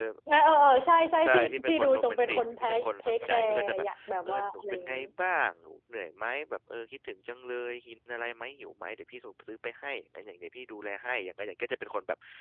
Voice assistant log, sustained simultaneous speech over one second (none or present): present